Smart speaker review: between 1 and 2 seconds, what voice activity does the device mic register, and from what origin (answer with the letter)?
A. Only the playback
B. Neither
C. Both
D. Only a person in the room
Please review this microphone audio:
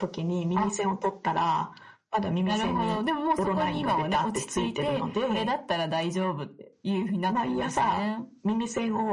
A